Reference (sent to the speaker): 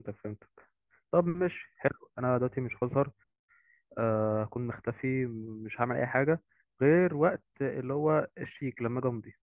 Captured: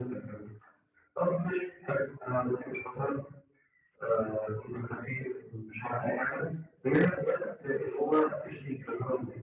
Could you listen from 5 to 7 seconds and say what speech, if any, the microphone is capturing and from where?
echo only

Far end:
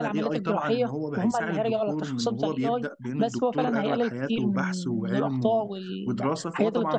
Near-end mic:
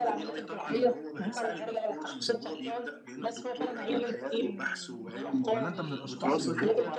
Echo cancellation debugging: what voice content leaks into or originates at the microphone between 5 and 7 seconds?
both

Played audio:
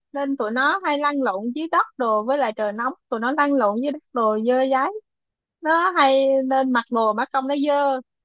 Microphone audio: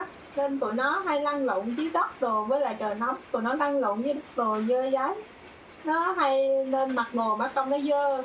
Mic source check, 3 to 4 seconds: echo only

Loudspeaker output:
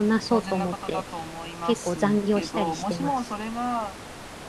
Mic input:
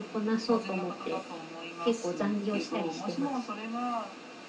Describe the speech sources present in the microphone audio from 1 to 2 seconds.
echo only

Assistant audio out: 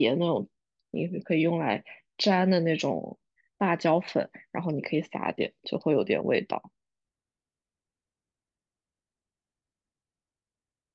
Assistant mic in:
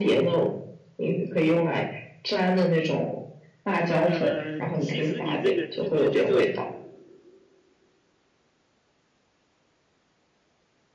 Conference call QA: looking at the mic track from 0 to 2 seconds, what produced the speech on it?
echo only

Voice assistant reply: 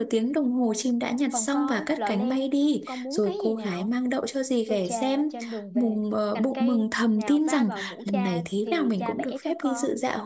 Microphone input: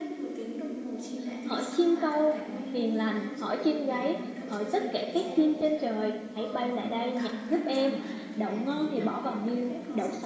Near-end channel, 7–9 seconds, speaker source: both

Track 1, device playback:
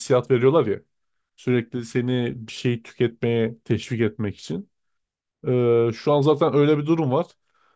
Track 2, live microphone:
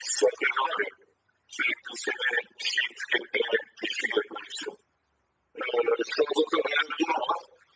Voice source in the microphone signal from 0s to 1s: echo only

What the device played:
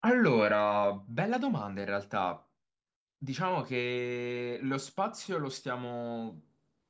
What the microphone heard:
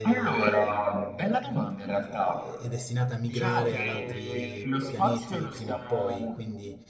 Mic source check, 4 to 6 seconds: both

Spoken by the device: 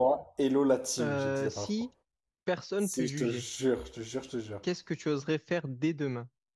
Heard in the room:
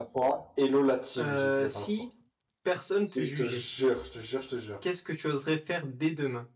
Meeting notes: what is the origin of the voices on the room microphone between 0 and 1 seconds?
echo only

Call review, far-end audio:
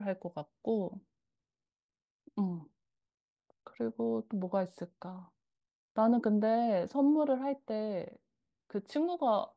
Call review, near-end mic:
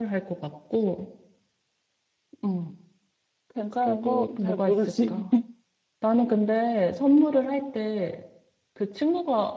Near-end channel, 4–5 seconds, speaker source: both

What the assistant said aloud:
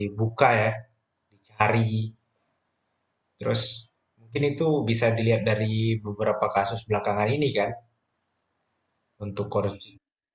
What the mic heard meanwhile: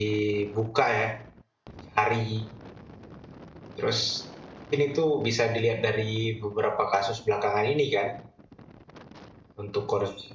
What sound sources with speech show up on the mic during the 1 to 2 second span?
echo only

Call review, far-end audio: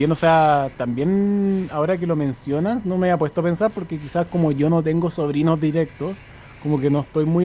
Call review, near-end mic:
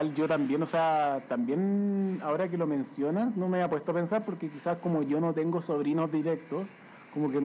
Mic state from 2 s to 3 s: echo only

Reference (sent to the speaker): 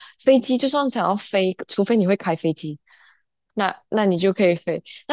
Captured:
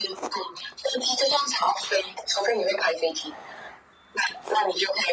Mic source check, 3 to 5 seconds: echo only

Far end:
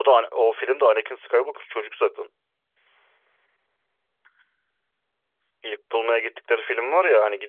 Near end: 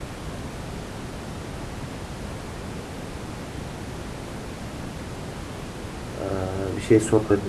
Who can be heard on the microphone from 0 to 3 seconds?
neither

